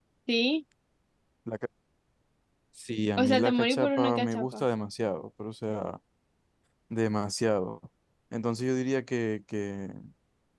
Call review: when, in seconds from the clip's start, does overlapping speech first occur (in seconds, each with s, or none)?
3.2 s